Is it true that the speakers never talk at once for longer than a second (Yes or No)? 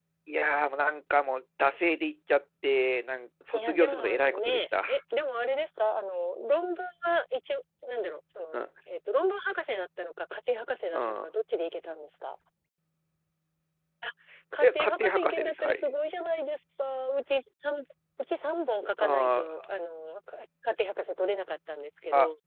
No